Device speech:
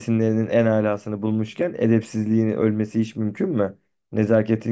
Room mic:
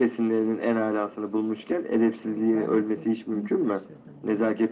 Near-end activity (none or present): present